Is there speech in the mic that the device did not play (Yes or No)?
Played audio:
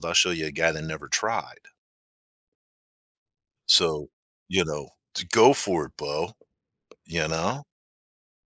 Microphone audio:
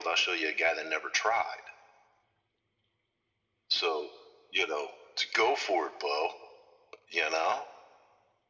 No